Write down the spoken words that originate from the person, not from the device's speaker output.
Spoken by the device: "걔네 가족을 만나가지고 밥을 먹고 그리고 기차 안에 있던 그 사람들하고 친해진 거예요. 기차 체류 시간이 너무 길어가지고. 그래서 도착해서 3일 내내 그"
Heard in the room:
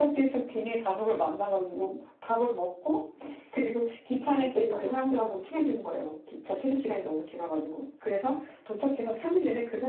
한식당은 기본이고, 네.

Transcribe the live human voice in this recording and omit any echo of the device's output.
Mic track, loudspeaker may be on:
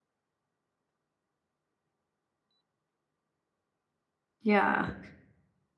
yeah.

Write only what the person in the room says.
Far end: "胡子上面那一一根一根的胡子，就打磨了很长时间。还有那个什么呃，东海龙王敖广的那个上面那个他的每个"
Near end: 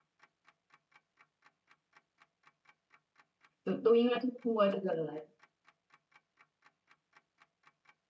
就都应该都通过这个来。

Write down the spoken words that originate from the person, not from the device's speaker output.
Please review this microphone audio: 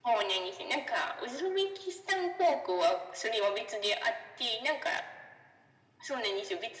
none

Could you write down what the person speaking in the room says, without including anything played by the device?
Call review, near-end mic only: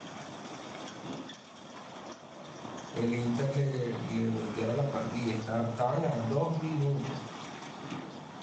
el Inter le, le volteara la partida. Esta- estaban a dos minutos,

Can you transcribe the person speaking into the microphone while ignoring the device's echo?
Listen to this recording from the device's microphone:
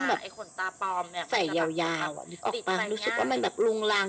none

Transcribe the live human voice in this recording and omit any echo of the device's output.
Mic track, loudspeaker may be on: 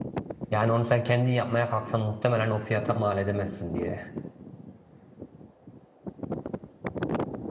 Yani onu sen kendin yapmaya kalksan muhtemelen o fiyata mal edemezsin diye

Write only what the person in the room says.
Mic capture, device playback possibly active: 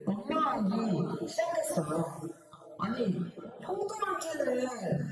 none

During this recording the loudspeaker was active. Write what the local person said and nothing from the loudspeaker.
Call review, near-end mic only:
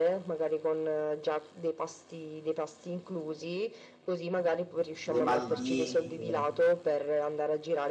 Le Maldive,

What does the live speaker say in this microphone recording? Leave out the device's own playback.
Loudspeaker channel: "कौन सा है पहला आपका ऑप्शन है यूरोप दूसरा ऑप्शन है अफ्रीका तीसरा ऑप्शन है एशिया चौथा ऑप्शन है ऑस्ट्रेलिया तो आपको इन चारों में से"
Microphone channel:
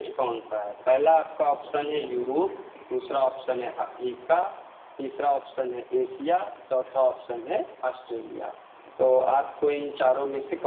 none

